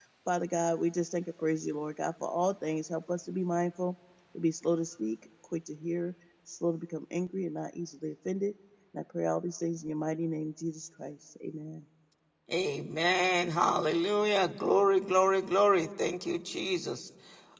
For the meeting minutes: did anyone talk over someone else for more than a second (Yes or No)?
No